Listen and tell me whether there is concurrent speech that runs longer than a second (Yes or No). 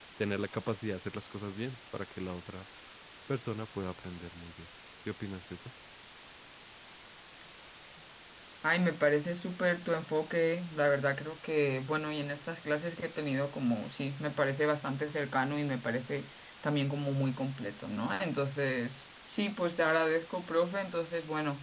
No